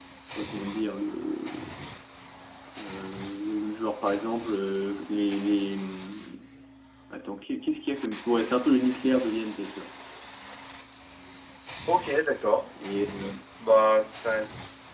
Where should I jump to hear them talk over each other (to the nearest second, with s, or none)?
none